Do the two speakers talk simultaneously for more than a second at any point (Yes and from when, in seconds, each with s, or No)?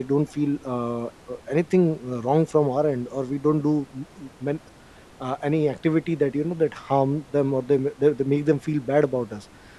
No